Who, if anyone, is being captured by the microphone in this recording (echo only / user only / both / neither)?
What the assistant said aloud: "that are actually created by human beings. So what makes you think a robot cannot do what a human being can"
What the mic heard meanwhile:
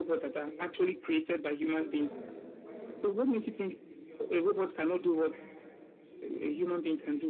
both